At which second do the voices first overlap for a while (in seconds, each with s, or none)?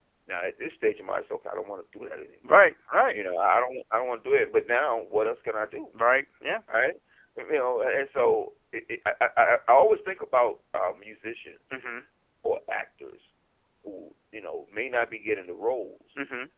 none